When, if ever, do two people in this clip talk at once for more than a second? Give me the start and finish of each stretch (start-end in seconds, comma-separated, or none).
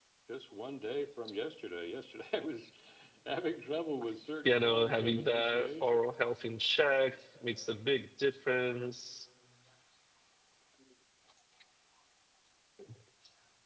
4.4-6.0